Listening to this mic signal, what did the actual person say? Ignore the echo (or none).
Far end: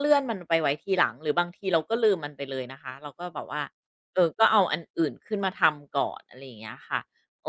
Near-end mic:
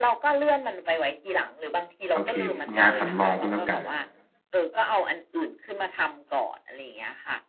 โอเคงานสำรองก็แล้วกัน